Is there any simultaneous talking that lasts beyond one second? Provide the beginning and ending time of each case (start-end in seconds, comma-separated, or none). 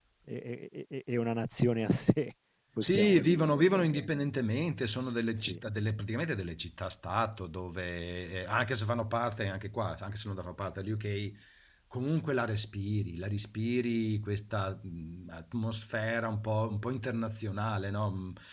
2.8-4.1